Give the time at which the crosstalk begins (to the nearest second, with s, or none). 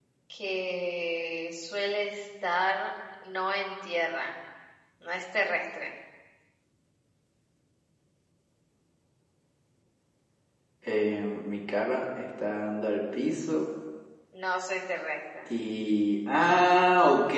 none